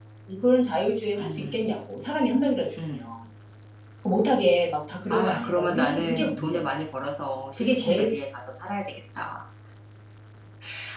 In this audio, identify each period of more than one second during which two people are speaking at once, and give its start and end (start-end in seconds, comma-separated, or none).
5.1-6.6